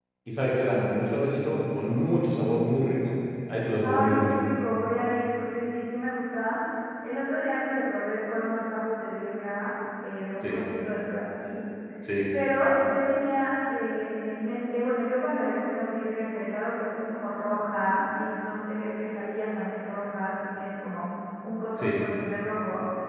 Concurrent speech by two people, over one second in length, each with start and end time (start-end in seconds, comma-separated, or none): none